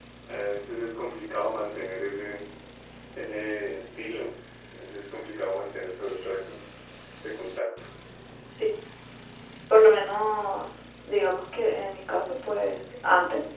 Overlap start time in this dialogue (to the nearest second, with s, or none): none